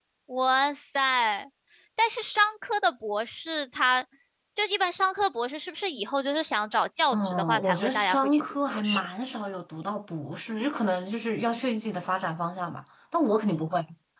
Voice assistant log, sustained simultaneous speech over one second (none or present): present